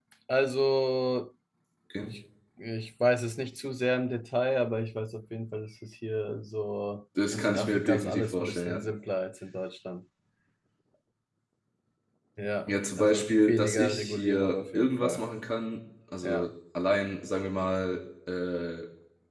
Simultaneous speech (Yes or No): Yes